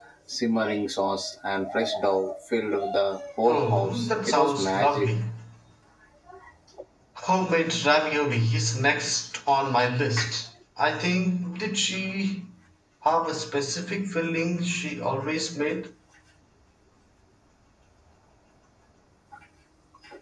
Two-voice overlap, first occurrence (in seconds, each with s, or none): 3.5 s